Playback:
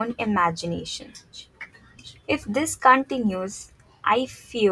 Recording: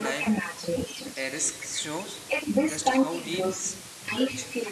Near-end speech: present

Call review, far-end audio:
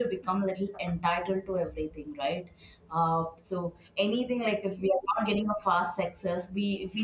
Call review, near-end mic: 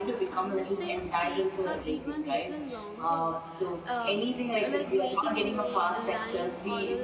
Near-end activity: present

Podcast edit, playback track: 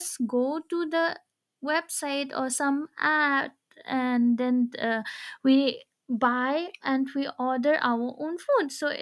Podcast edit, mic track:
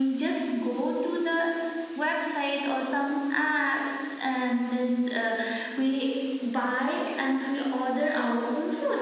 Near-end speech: none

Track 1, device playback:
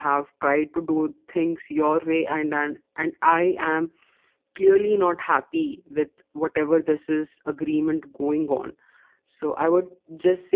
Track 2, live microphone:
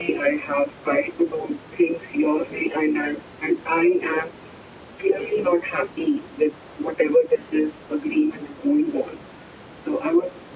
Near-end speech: none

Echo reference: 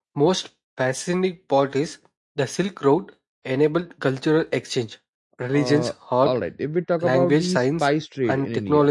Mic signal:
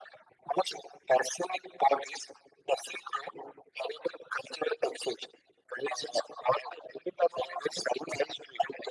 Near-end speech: none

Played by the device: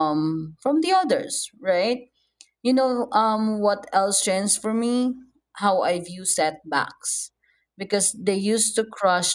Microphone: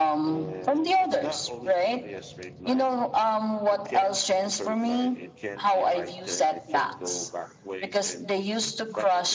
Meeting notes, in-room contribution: present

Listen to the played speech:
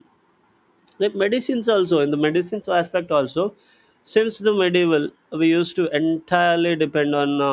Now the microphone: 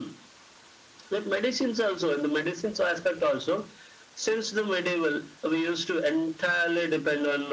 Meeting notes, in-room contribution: none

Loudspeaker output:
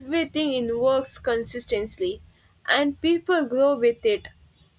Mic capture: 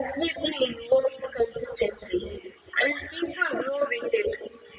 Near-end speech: none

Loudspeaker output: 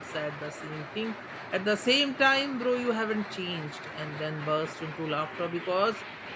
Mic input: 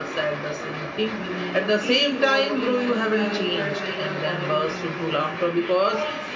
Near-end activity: present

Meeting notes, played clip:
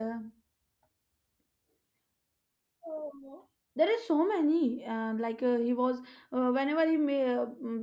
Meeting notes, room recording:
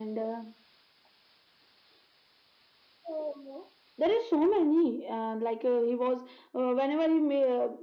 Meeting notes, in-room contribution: none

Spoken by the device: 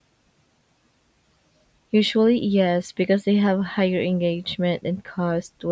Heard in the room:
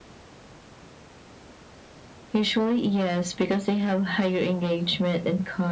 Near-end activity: none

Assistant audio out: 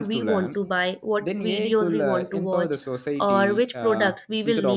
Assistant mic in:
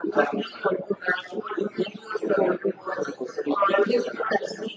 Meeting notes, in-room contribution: none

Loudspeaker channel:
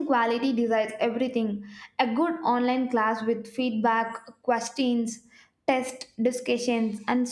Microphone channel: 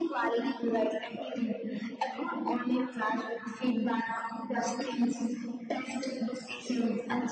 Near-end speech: none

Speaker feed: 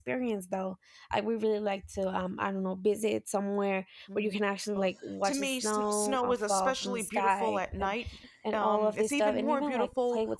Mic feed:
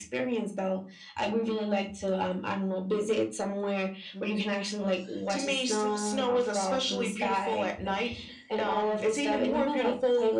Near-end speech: none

